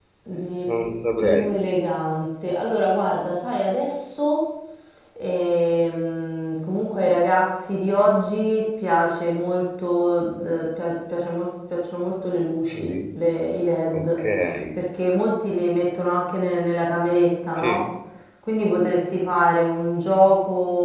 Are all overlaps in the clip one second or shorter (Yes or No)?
Yes